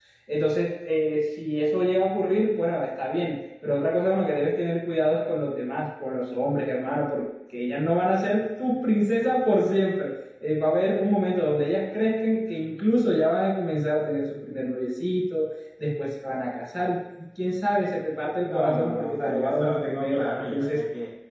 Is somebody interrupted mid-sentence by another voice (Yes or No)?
Yes